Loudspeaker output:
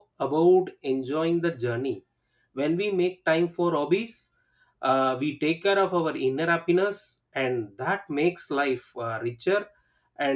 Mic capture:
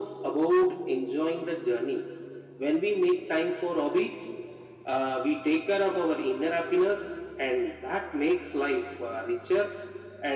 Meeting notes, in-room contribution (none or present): none